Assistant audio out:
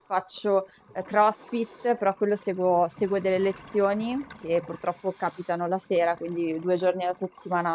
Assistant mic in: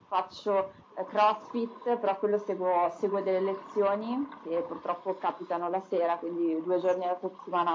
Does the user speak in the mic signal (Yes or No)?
No